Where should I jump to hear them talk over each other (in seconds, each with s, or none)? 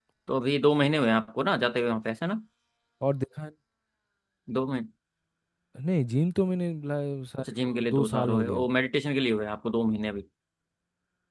7.4 s